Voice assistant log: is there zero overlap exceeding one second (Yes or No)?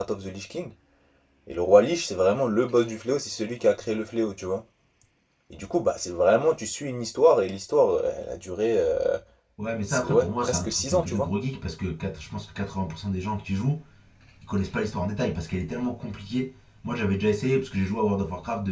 No